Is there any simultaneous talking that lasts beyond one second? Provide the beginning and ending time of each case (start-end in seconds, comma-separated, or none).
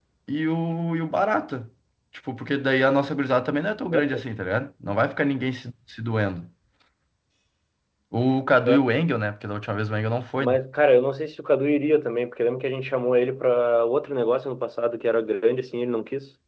none